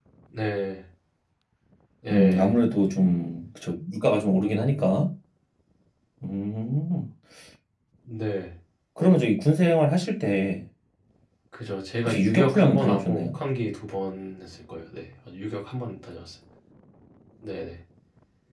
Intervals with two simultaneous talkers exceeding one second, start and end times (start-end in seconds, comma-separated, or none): 12.1-13.4